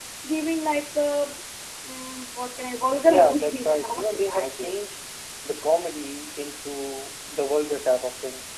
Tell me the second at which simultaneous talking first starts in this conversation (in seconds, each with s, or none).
3.0 s